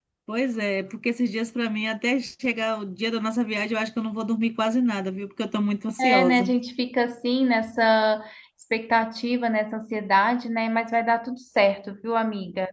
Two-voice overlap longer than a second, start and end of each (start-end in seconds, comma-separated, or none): none